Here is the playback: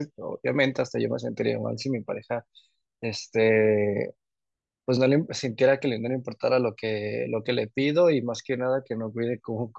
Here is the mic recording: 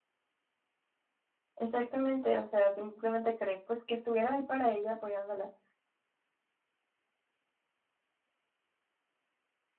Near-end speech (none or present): present